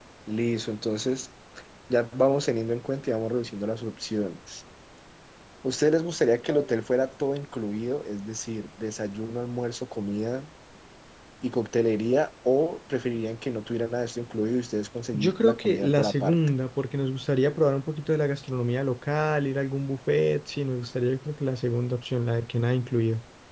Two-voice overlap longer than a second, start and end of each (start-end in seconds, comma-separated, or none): 15.1-16.4